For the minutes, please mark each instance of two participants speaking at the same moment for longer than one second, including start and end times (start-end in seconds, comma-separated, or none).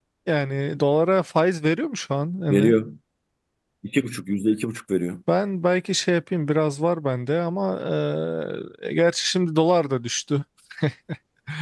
none